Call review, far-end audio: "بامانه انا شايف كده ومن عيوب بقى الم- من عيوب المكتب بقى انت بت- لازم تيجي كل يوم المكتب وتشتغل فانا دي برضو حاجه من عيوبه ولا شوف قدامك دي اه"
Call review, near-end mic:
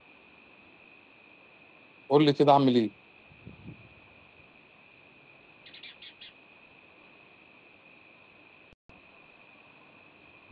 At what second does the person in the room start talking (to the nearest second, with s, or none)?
2 s